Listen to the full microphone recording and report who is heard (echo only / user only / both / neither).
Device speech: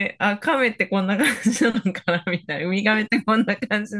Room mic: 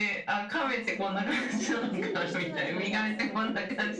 both